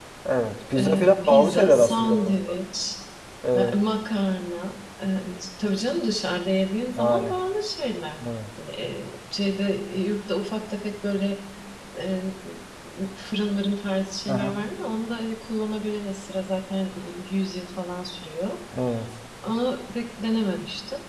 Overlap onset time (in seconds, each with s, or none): 0.8 s